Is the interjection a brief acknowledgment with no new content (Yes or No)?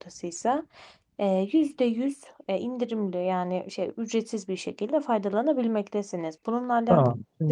No